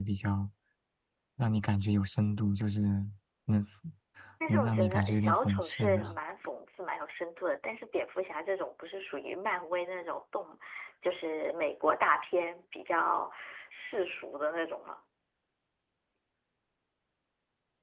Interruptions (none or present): present